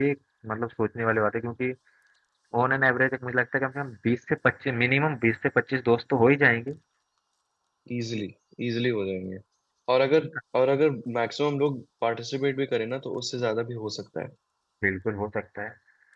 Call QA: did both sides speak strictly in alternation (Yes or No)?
Yes